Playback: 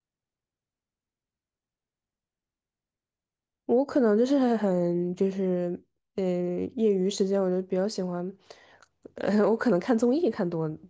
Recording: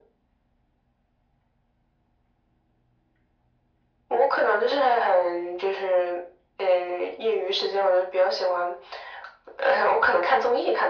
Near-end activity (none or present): none